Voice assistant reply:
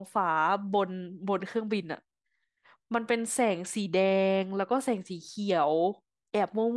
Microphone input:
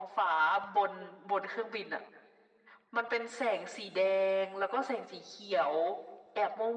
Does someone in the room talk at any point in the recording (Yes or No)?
No